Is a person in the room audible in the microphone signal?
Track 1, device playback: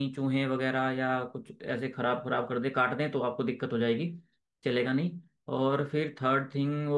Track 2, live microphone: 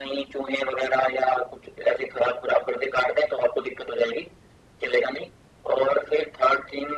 No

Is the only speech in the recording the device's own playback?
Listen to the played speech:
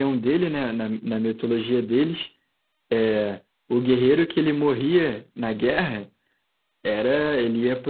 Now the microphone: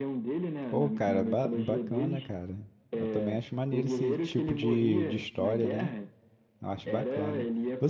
No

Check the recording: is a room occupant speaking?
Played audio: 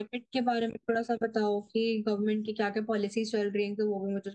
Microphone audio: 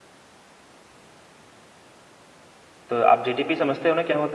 Yes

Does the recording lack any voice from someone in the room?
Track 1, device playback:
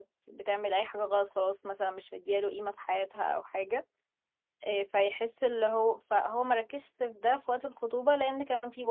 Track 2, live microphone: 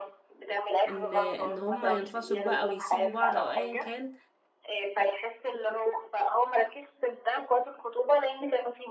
No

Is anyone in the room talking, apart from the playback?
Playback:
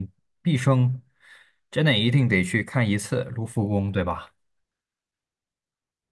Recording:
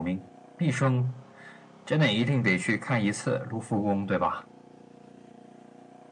No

